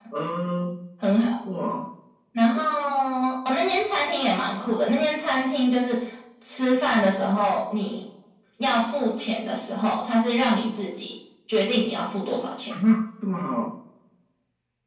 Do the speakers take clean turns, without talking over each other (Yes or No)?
Yes